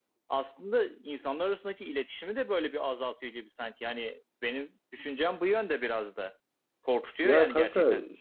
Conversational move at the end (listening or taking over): taking over